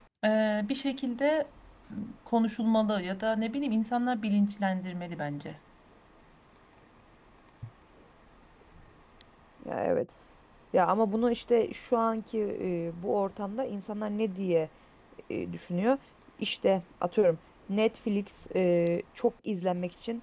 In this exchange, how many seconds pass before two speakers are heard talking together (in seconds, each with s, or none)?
none